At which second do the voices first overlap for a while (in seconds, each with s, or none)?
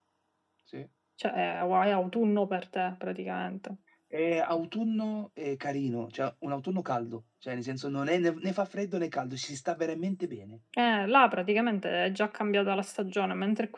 none